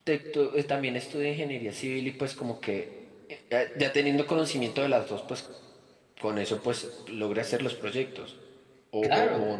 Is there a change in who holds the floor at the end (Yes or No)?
Yes